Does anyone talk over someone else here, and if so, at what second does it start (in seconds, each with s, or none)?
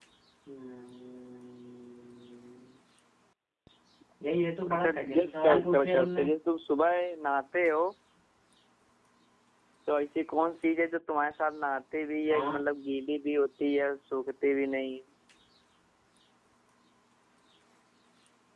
4.7 s